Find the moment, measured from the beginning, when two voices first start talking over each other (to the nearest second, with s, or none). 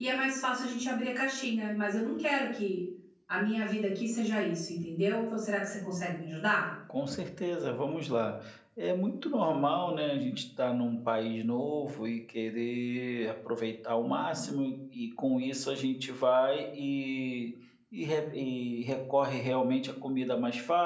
none